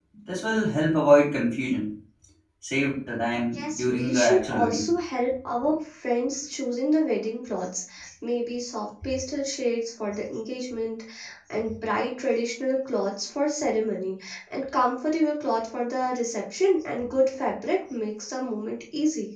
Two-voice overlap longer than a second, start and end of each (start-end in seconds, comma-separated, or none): 3.5-4.9